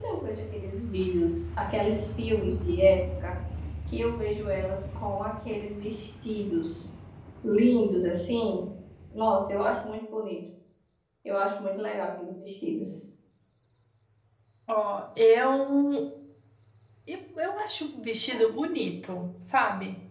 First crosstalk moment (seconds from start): none

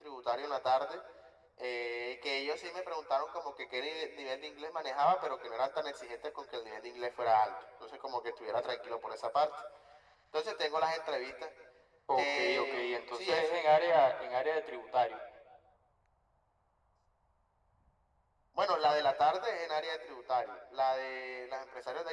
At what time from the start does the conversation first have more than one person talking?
12.2 s

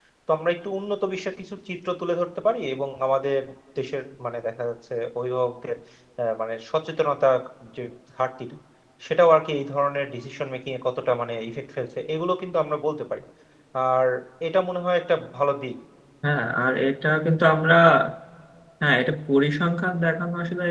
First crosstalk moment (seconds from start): none

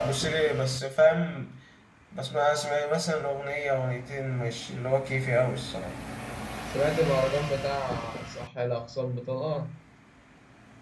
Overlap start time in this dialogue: none

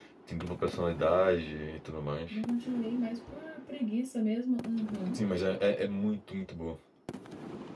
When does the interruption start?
none

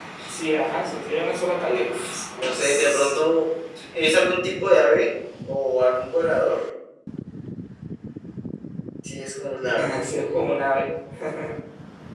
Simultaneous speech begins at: 1.6 s

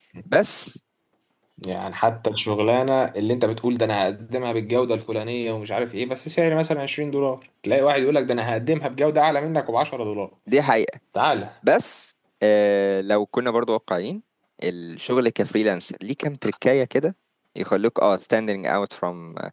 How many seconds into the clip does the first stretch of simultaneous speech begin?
none

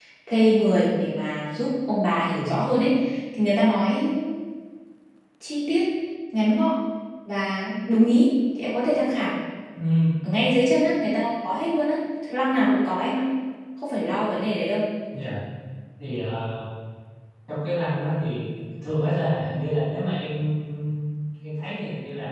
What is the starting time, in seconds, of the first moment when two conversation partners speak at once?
none

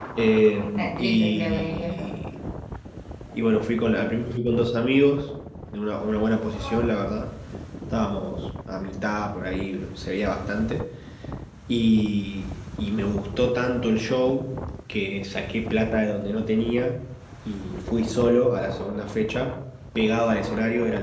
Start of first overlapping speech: 0.6 s

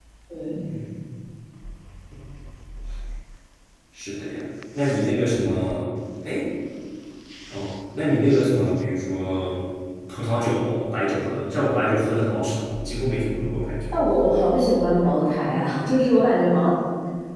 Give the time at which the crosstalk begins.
none

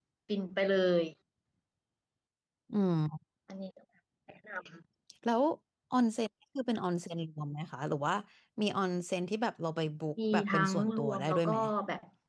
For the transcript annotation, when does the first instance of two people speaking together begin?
10.3 s

